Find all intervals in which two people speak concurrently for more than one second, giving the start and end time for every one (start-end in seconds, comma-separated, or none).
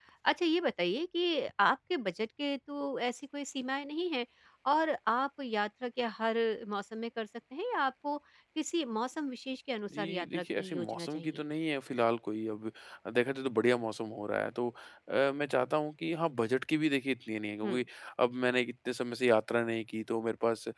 10.0-11.4